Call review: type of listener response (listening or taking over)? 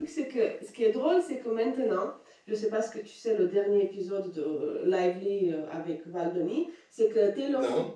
listening